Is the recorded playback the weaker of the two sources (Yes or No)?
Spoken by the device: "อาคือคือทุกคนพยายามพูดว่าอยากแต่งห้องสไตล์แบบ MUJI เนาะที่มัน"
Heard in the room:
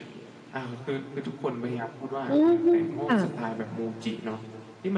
Yes